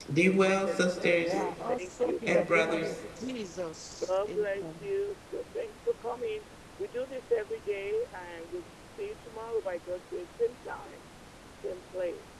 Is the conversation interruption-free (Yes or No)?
No